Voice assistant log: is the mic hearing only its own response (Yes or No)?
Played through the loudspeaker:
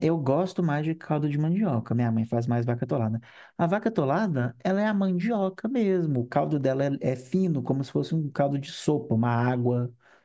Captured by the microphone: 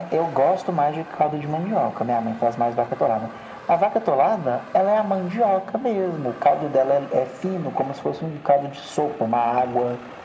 Yes